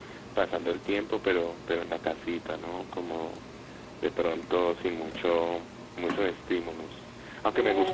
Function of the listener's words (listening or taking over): listening